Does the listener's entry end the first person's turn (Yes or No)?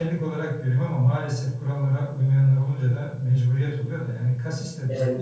No